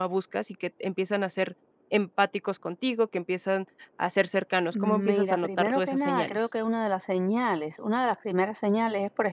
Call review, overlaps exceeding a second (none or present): present